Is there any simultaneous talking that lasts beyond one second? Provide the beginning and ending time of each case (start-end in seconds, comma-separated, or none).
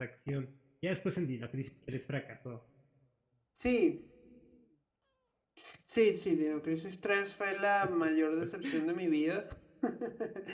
none